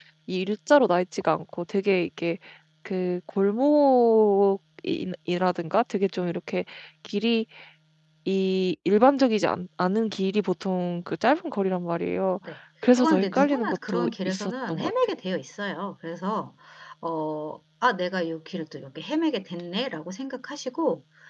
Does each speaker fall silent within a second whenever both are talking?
No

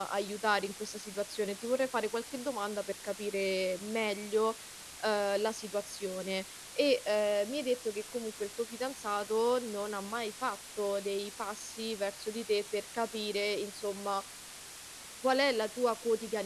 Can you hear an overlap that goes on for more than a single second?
No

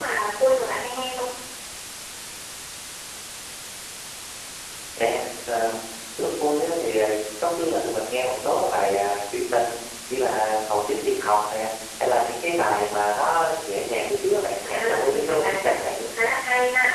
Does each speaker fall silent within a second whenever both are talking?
No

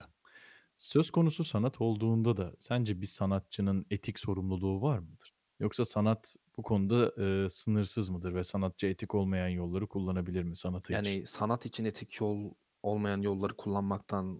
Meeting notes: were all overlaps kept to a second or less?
Yes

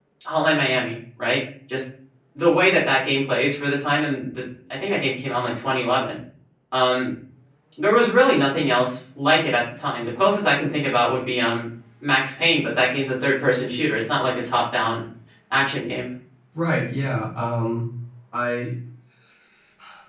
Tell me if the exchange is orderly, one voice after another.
Yes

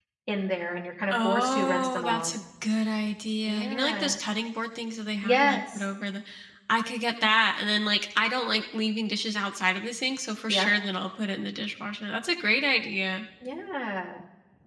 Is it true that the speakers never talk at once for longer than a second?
No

